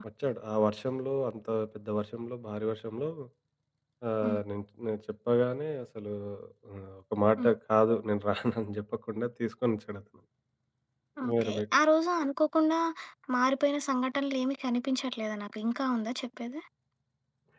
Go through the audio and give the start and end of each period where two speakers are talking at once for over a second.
none

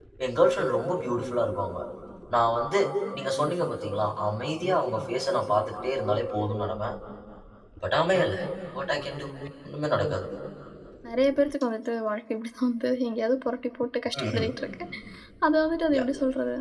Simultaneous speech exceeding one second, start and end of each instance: none

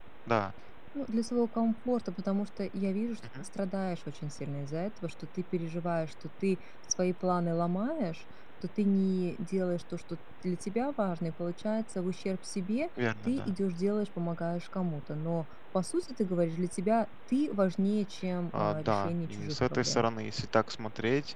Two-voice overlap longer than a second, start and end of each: 18.5-20.1

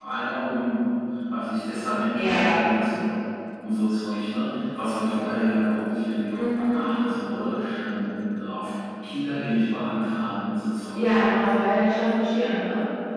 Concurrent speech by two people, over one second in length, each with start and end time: none

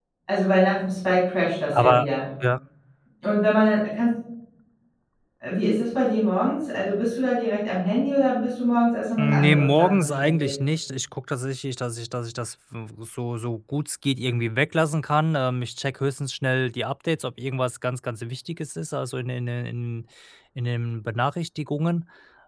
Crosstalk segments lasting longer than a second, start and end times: 9.2-10.5

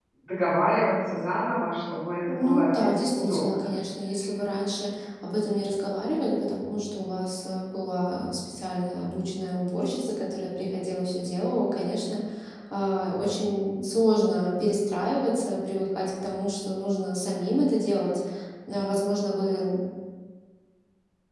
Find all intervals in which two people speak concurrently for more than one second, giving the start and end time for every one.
2.3-3.7

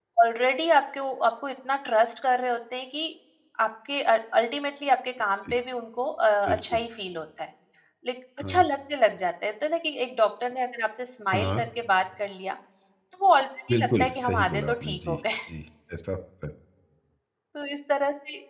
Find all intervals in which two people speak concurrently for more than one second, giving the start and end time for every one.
13.7-15.2

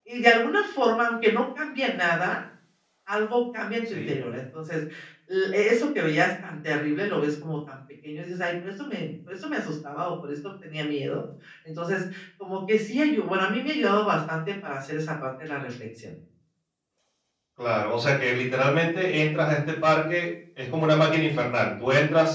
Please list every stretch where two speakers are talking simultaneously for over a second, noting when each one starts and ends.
none

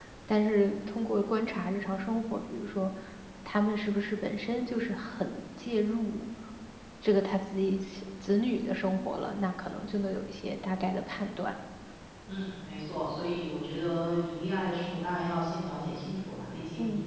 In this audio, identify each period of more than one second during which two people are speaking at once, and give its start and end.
none

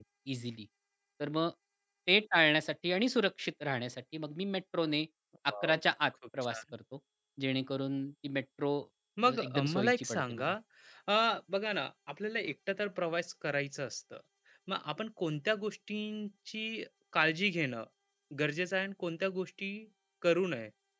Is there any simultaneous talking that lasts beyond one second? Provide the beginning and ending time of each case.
9.2-10.5

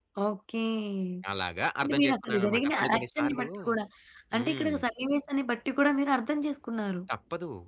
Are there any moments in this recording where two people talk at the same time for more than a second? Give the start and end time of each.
1.8-3.5

